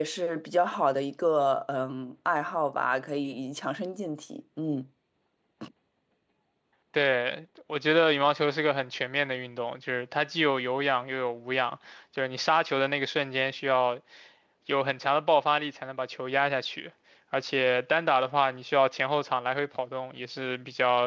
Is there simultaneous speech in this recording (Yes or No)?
No